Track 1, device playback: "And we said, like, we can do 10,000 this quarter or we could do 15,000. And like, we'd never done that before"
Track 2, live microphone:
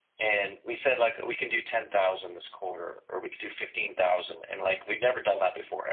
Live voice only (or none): none